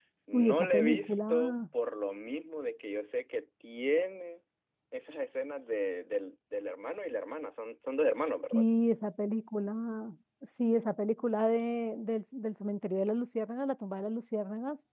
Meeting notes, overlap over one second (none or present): present